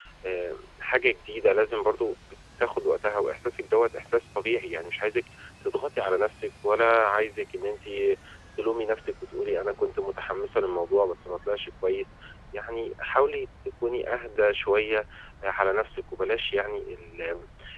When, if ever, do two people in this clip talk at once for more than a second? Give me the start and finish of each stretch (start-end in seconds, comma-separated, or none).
none